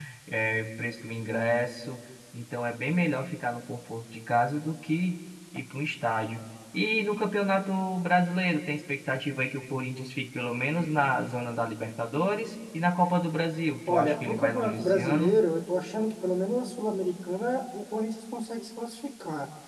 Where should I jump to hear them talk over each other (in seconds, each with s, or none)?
13.9 s